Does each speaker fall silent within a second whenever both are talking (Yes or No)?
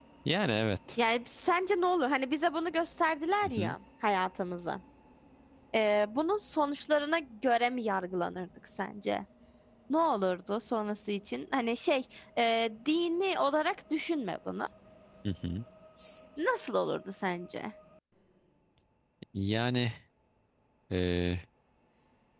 Yes